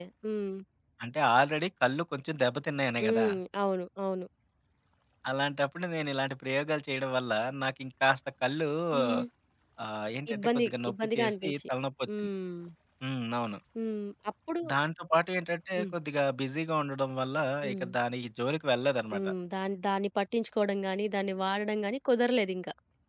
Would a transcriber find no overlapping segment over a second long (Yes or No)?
No